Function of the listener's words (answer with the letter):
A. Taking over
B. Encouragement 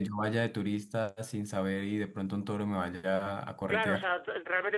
A